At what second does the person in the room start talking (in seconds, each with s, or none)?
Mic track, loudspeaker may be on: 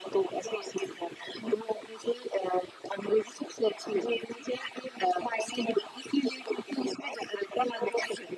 none